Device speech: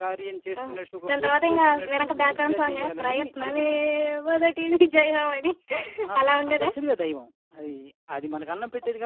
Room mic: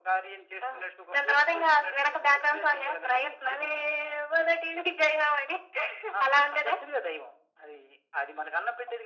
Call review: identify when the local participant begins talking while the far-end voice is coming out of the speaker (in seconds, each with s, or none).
none